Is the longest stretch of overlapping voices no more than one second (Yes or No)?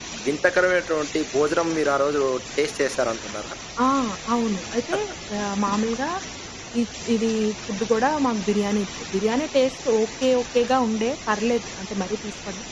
Yes